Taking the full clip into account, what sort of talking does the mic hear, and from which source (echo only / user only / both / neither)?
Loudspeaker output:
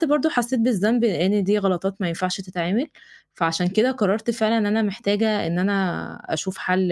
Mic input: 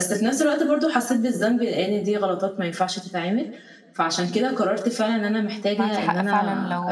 both